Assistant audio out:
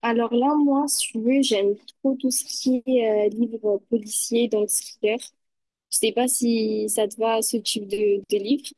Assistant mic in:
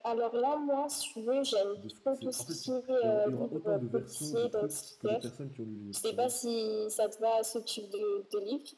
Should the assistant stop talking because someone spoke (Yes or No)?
Yes